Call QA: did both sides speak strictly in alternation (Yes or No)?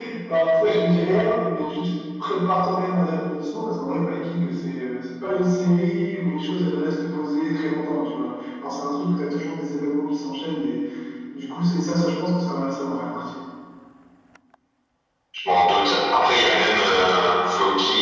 Yes